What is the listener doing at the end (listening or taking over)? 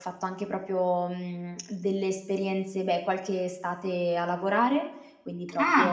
taking over